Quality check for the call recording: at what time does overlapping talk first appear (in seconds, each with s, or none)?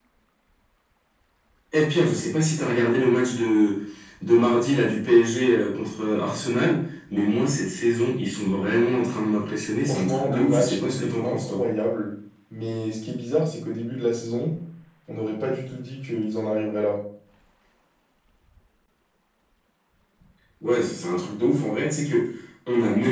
9.8 s